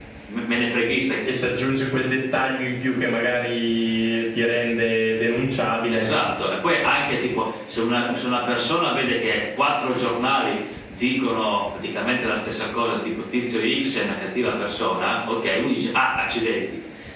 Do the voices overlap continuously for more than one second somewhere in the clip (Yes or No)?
No